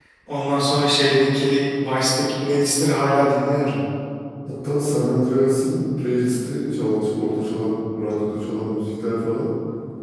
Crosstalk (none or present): none